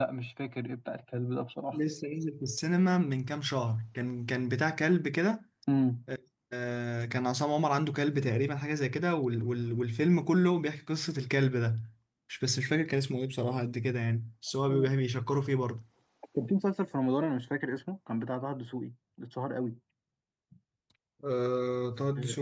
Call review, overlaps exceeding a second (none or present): none